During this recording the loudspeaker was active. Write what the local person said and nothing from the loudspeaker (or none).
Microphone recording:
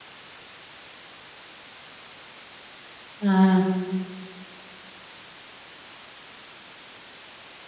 ஆ.